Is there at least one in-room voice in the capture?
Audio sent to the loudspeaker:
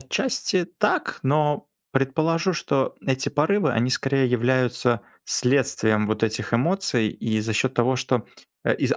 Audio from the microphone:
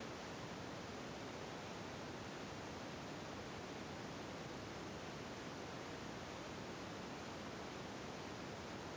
No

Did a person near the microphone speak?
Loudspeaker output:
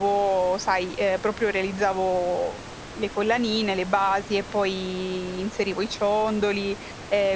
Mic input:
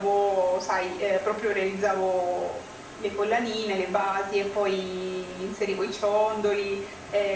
No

